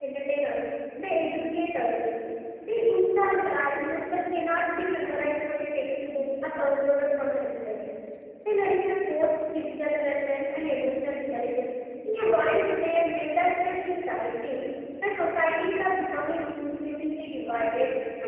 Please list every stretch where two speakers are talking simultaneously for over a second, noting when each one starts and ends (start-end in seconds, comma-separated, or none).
none